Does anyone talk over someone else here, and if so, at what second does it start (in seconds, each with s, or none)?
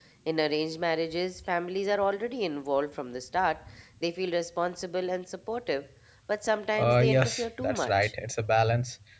6.7 s